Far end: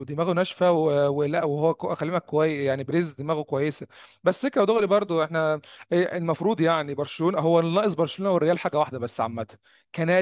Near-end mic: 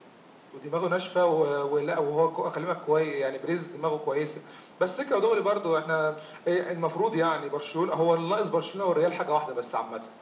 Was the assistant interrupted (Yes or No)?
No